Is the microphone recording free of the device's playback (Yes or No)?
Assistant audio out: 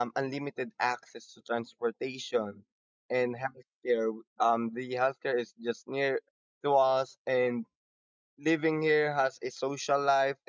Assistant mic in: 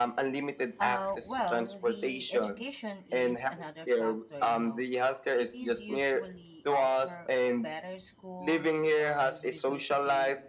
No